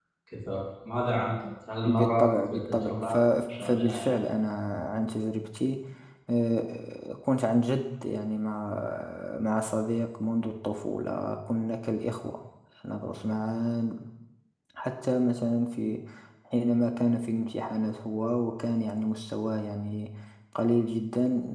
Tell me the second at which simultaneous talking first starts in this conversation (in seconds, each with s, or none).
1.9 s